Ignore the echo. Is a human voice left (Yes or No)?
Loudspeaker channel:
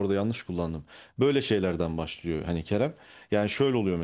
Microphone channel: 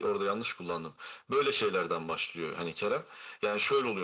No